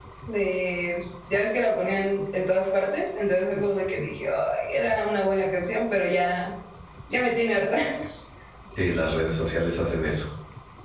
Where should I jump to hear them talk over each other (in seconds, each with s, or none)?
none